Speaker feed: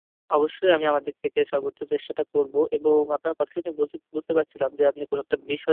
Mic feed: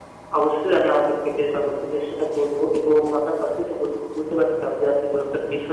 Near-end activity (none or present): none